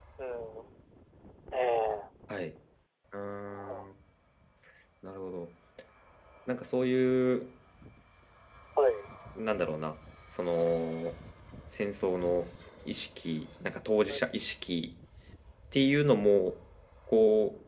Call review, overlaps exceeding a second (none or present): none